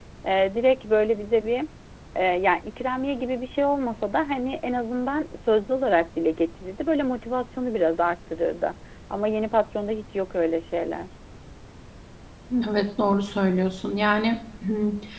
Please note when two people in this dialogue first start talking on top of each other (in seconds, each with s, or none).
none